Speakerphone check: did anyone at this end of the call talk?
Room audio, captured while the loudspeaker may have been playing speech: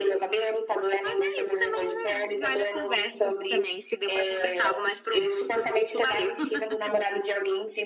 No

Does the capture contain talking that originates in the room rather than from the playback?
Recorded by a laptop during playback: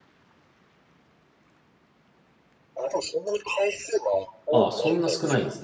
Yes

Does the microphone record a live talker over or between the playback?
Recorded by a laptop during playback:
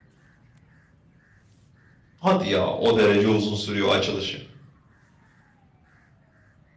Yes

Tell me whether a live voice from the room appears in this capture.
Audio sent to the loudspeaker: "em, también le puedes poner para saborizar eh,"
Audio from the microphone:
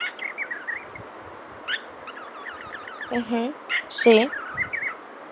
Yes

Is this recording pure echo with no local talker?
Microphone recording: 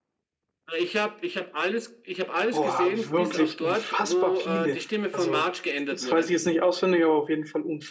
No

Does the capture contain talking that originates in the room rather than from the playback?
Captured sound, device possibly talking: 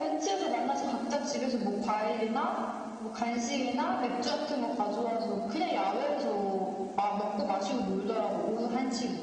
No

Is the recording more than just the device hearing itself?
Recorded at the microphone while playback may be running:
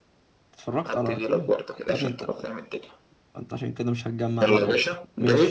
Yes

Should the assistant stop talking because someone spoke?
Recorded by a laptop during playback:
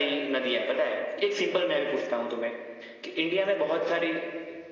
No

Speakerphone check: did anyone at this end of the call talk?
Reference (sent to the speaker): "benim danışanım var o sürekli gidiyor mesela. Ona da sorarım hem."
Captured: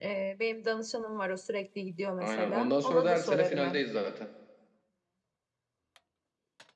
Yes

